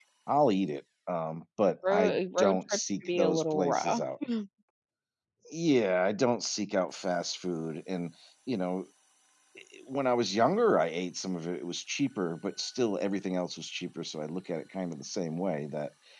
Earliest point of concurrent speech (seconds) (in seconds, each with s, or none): 1.8 s